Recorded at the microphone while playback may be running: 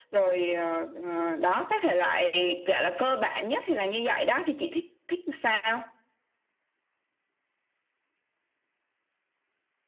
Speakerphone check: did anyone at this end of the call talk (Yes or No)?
No